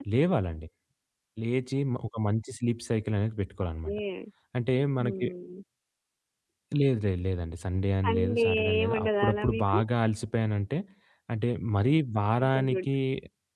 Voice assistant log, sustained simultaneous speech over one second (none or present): present